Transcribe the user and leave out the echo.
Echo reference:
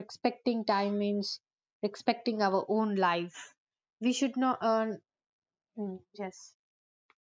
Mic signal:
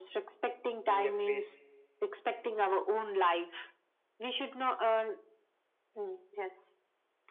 Missing a pace

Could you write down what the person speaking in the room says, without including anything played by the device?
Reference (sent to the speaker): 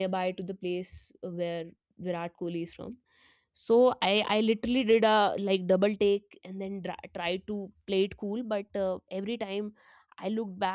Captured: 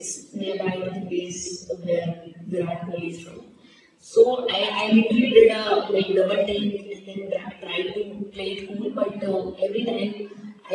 none

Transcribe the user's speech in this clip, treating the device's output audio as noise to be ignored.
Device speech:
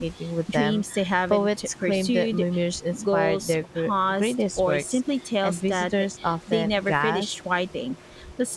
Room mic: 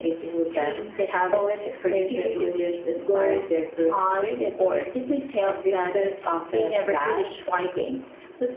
none

